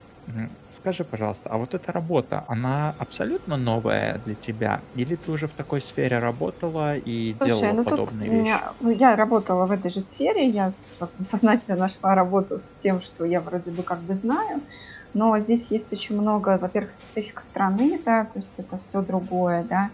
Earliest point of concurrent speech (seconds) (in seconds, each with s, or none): 7.4 s